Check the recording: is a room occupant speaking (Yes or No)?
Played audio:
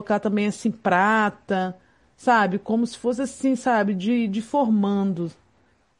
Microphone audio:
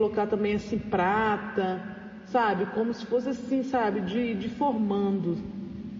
No